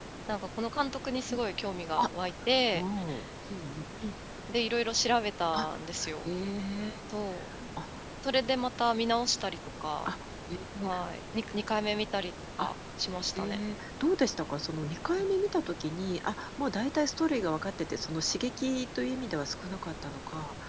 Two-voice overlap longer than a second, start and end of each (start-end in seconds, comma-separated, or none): none